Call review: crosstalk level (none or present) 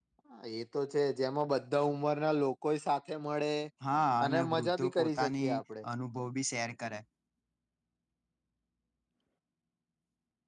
present